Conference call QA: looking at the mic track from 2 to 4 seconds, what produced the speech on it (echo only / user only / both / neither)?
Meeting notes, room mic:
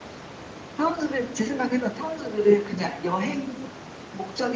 echo only